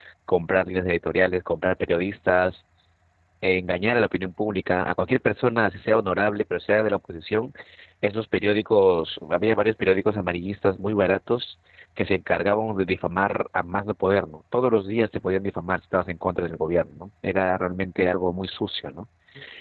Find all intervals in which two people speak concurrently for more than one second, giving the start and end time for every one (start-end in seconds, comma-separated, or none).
none